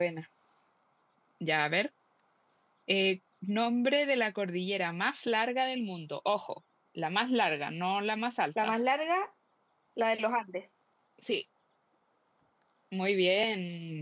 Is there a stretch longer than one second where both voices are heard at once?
No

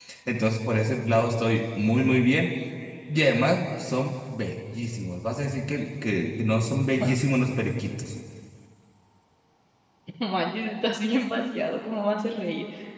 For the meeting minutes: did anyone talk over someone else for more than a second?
No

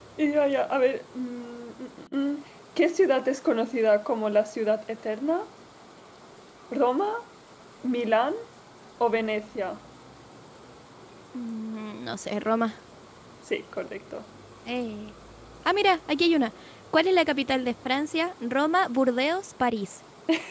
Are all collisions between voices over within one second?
Yes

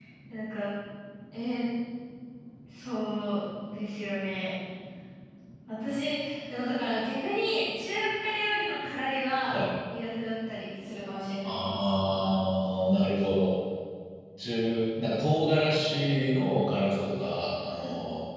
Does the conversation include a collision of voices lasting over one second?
No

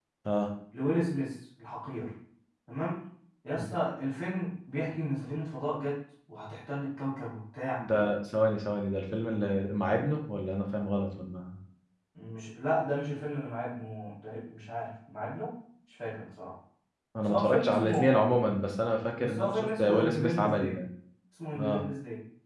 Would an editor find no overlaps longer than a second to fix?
No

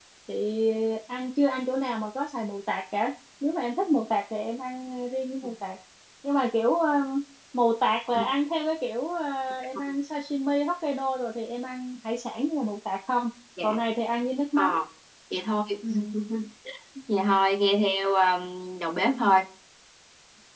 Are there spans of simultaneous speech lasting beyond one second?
No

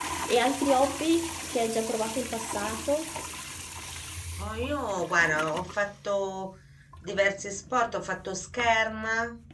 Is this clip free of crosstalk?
Yes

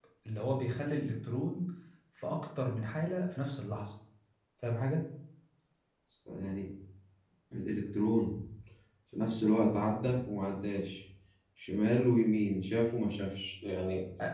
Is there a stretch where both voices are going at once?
No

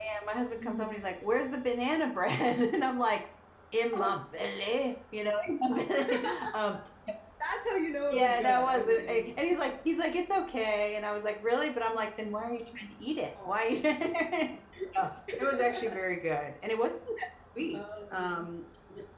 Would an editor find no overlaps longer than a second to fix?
No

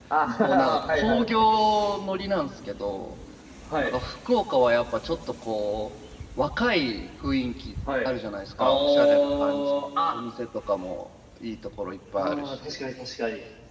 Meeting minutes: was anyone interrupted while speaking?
Yes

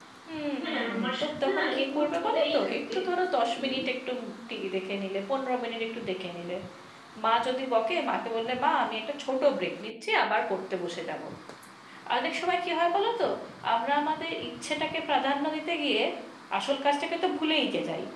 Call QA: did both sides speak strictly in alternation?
No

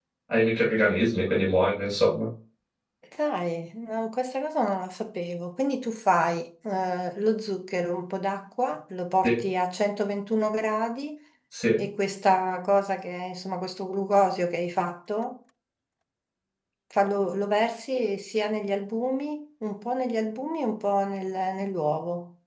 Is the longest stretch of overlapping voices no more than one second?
Yes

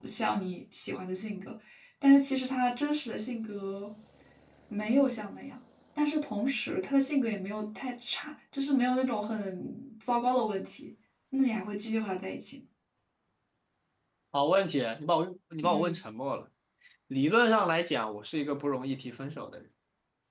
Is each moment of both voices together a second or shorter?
Yes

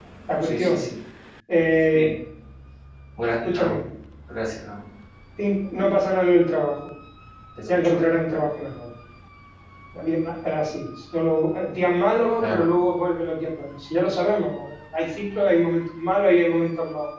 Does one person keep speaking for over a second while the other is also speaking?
No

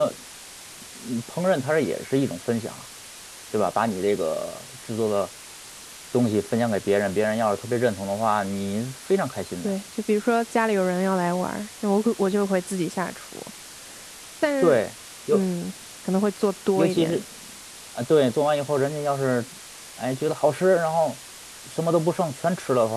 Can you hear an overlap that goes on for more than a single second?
No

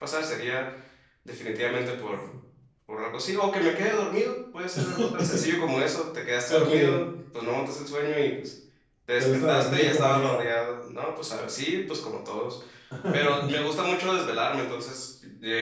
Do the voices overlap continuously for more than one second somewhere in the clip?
Yes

